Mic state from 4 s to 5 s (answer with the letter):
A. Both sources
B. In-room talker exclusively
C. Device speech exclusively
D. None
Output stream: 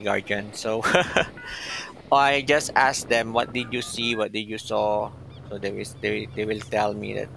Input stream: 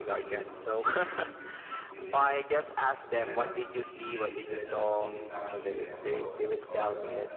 A